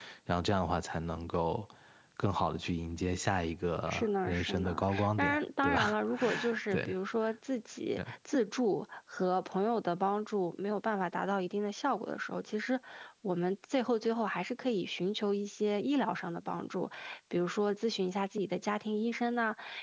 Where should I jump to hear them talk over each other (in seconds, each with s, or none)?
3.9 s